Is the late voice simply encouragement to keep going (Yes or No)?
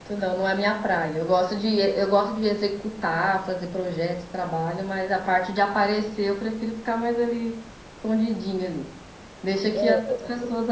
Yes